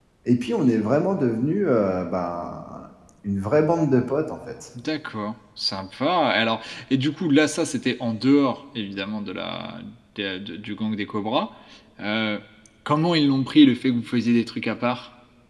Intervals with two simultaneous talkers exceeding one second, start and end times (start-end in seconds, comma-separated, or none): none